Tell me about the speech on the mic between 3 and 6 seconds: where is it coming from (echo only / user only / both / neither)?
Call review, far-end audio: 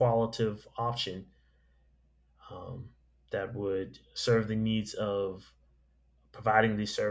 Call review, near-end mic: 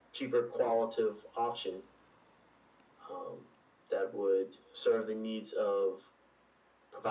echo only